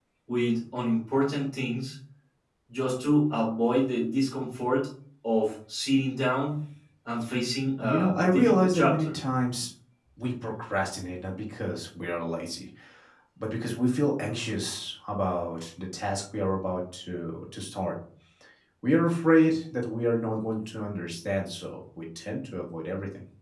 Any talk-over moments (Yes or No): Yes